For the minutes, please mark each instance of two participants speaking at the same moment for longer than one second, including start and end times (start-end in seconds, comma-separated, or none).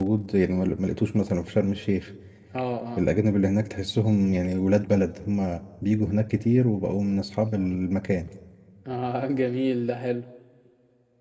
none